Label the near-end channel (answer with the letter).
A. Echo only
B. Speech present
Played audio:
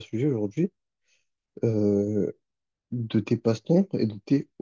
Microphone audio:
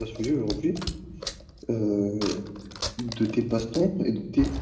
A